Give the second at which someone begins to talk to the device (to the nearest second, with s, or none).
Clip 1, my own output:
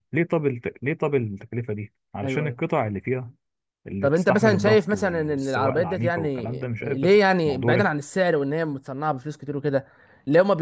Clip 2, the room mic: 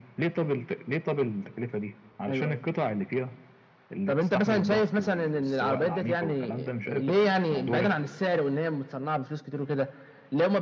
none